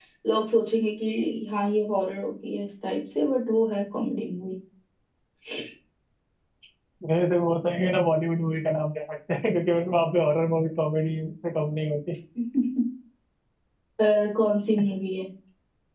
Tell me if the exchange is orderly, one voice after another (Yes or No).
Yes